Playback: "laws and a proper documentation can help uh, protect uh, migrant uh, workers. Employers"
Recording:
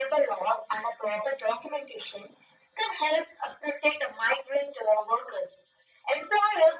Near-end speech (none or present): none